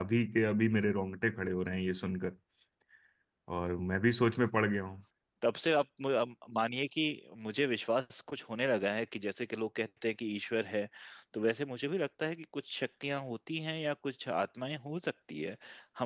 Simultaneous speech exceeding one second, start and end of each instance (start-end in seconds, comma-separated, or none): none